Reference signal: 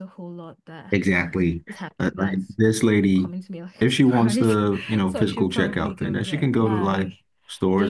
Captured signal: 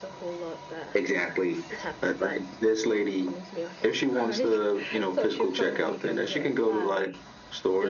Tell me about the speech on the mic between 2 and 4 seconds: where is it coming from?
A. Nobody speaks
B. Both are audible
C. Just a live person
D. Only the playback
D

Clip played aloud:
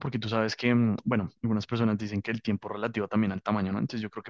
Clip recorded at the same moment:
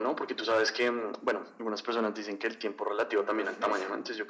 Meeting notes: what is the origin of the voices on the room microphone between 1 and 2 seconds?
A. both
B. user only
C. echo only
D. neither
C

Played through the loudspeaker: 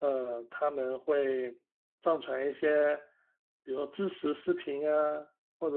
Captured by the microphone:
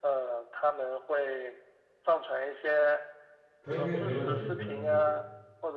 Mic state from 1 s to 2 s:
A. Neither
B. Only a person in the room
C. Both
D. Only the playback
D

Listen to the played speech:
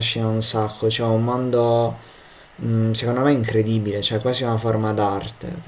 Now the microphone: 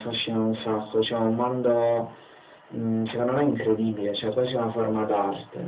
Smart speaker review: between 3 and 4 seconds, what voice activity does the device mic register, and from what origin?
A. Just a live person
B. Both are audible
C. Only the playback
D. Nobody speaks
C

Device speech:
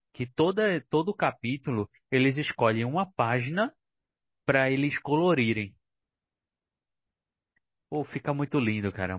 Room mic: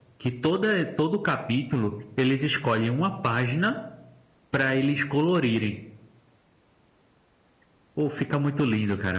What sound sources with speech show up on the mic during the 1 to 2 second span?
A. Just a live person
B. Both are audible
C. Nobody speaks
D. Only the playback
D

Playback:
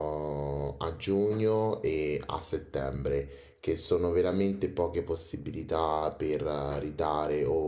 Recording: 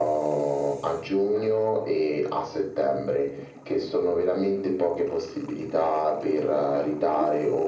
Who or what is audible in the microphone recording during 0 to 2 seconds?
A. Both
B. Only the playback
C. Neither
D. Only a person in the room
B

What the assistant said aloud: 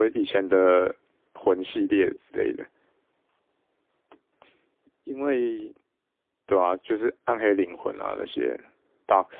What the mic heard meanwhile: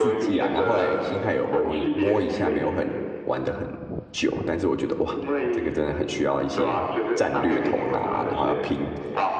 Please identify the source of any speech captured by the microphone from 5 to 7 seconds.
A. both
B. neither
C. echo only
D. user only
A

